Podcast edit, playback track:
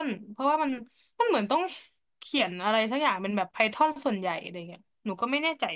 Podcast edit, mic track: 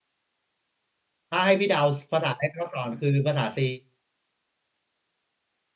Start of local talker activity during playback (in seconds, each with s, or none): 1.3 s